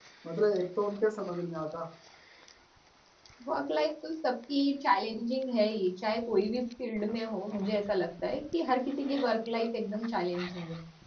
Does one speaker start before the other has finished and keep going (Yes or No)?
No